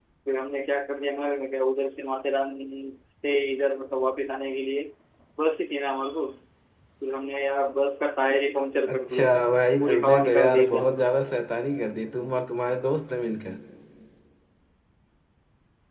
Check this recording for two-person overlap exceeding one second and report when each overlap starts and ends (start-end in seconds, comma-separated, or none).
9.8-11.1